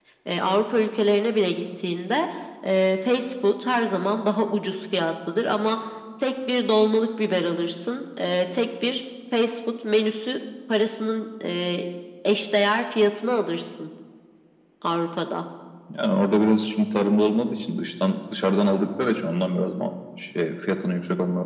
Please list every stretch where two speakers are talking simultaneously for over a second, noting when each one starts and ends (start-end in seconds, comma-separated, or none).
none